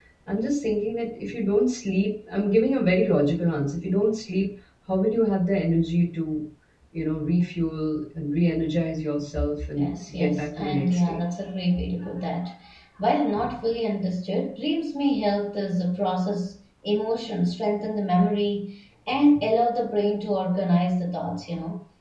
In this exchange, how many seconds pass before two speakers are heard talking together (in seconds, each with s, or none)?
9.8 s